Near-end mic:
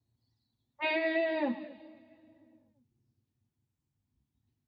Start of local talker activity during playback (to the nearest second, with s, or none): 1 s